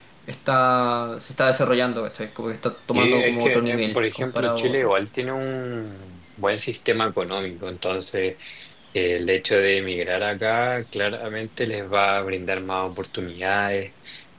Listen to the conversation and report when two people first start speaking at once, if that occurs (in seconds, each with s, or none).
2.8 s